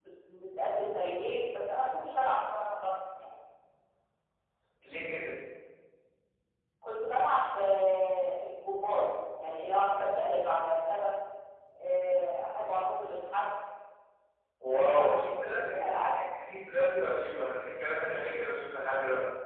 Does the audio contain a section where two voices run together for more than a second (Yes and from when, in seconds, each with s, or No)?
Yes, from 14.7 s